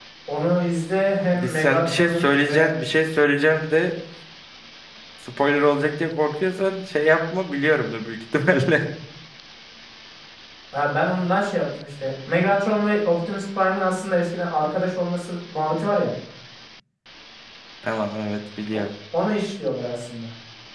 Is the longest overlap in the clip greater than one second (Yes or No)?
Yes